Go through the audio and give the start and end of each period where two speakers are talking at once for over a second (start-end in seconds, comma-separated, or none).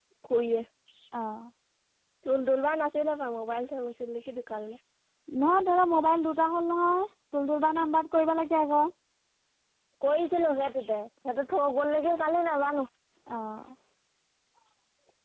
none